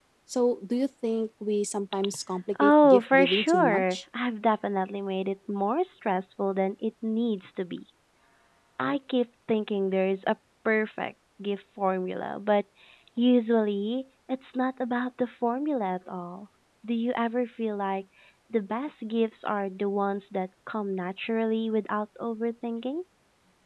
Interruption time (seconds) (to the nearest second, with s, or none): 3 s